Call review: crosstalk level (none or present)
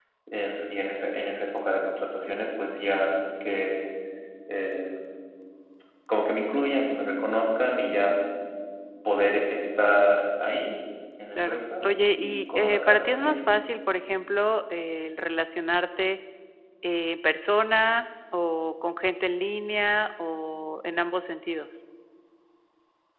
present